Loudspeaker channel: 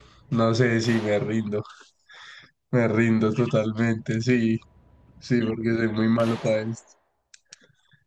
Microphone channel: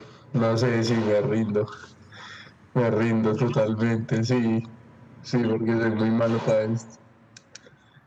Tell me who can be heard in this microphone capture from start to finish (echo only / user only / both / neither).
echo only